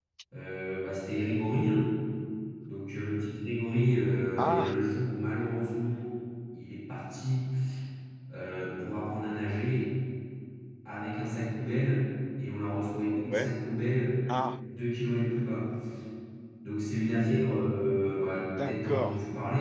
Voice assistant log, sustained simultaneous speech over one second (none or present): none